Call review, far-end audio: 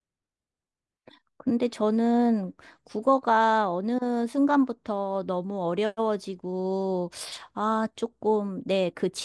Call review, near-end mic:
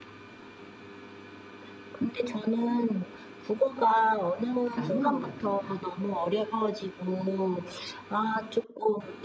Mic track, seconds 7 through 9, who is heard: echo only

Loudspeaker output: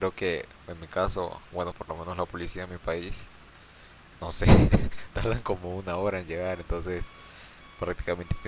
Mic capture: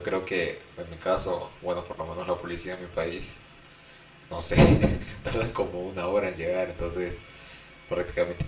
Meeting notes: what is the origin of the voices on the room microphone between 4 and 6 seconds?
echo only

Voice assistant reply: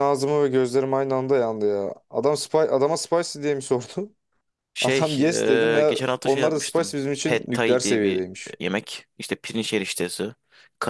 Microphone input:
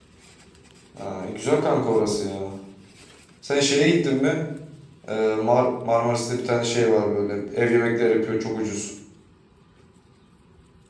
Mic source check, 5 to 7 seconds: user only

